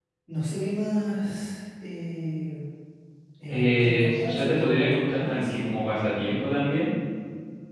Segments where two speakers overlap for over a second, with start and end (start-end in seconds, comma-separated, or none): 3.5-5.6